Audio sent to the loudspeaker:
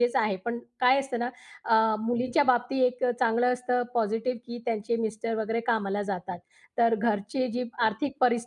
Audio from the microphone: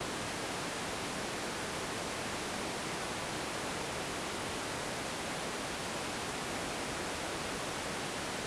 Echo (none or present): none